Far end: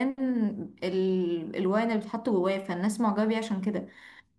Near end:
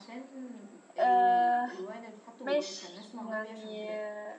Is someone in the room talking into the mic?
Yes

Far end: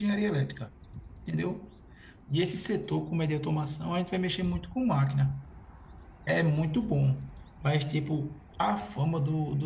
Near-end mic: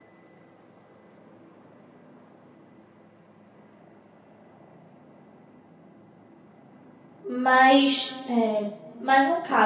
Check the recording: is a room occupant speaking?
Yes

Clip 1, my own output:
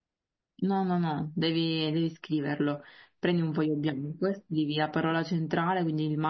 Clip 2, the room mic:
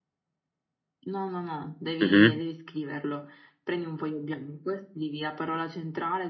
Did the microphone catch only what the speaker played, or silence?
No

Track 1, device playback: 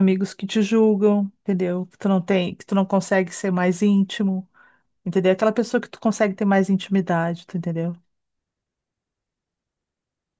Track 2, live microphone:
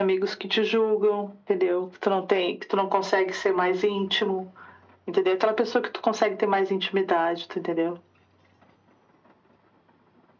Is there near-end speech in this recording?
No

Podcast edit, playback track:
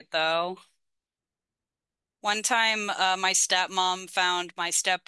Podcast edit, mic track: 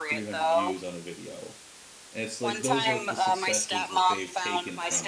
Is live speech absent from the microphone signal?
No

